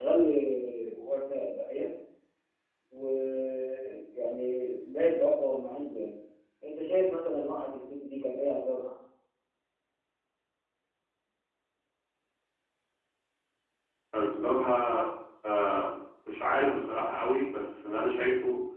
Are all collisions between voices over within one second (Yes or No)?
Yes